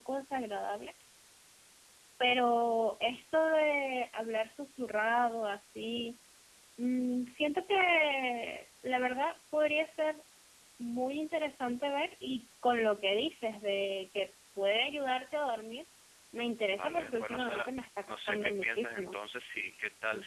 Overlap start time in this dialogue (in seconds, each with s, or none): 16.8 s